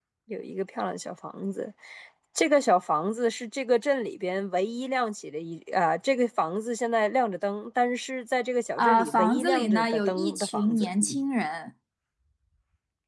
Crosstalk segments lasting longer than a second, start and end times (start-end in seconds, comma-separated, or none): 8.8-10.9